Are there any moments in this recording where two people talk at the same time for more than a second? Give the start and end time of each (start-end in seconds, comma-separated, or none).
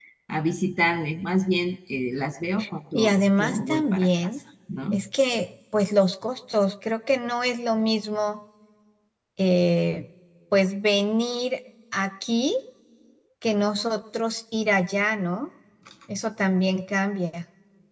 2.9-4.3